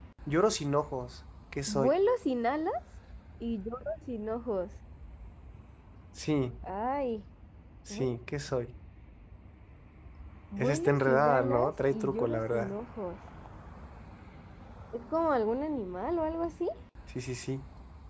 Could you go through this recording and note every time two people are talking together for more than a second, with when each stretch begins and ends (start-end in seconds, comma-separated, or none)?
10.6-12.7